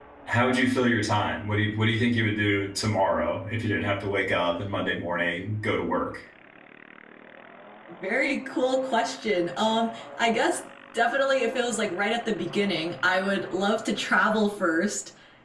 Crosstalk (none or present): none